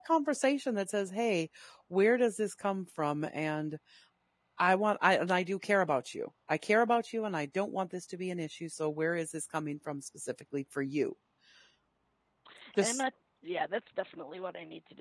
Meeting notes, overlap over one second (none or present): none